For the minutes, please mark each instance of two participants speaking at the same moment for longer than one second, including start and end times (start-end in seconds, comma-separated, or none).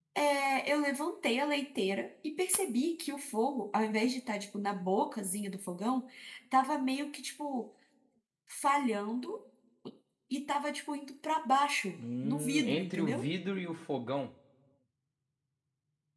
12.0-13.2